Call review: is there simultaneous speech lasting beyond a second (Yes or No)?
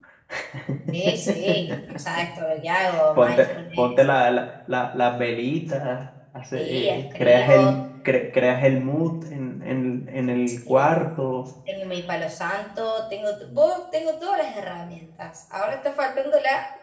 Yes